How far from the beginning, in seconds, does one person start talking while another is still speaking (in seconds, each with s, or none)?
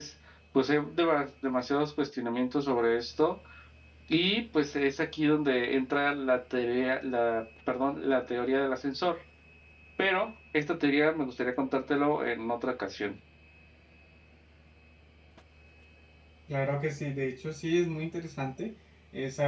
none